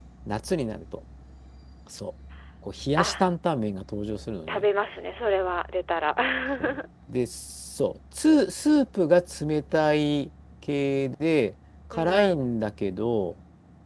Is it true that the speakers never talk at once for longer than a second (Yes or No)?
Yes